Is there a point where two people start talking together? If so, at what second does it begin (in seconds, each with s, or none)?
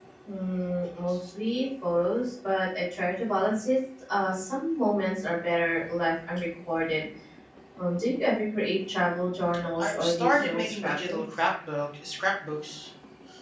9.8 s